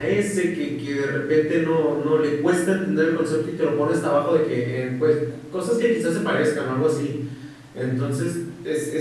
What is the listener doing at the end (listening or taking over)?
listening